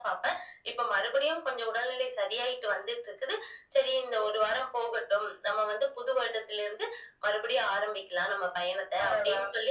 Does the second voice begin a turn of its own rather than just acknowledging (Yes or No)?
No